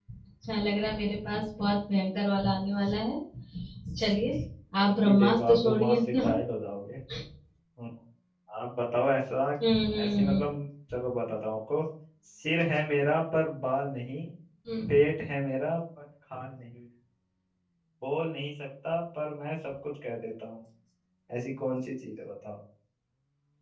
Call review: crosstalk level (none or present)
present